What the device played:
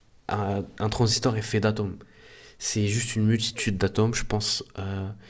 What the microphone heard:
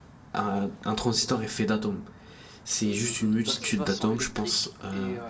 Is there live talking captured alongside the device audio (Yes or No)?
Yes